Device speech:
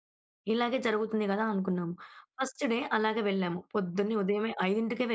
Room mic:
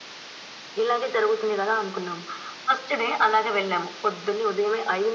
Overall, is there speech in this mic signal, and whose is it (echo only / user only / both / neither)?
echo only